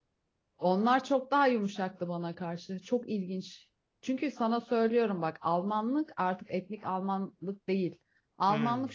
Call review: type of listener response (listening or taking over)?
listening